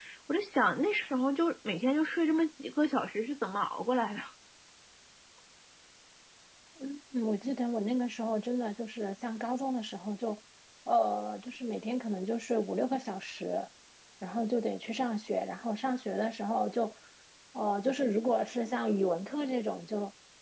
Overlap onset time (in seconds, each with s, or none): none